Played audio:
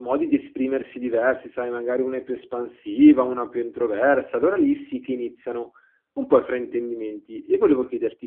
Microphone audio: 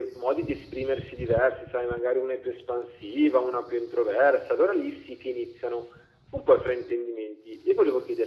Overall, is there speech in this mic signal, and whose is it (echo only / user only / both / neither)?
echo only